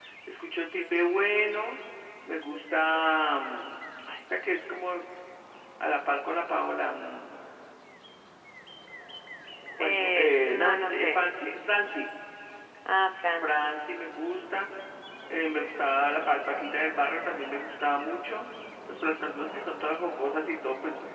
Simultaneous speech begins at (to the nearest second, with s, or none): 10 s